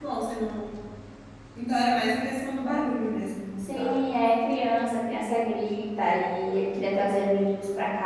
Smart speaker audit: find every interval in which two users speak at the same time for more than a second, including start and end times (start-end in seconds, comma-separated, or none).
none